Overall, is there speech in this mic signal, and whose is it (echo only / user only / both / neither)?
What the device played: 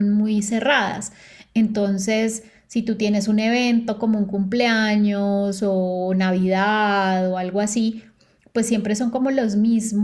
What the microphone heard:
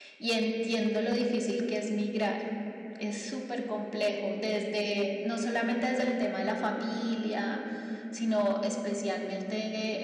user only